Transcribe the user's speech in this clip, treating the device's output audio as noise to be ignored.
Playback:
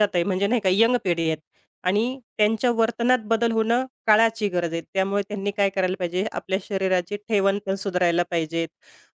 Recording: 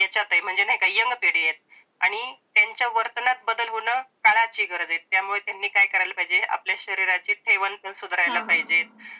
हां, हां.

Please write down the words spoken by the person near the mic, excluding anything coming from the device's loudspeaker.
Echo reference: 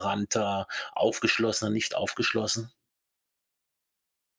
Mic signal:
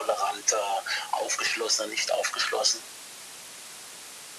none

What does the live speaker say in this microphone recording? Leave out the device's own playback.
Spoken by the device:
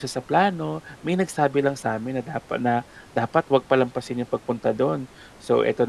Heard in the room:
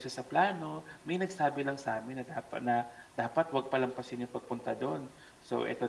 none

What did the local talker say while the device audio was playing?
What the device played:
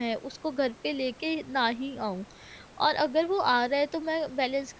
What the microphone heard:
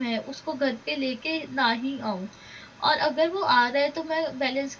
none

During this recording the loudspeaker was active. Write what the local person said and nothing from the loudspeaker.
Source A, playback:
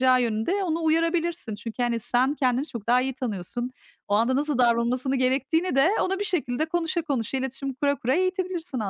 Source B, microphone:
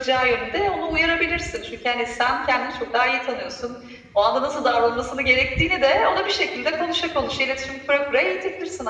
none

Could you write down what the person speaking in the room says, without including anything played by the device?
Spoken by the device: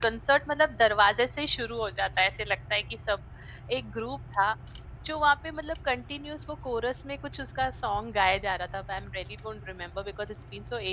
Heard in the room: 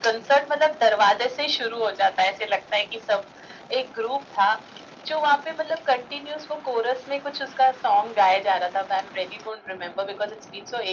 none

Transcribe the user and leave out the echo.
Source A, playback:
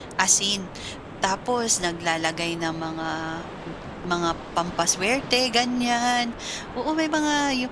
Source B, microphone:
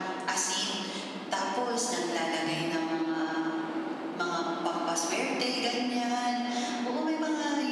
Mm.

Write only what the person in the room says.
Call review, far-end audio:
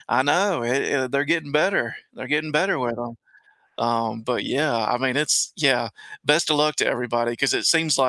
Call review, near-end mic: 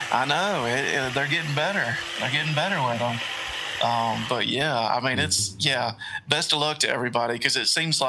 Mhm.

